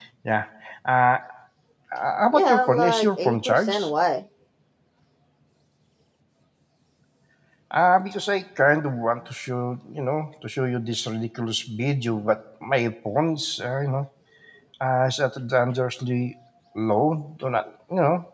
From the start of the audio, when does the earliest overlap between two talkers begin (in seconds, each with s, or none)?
2.3 s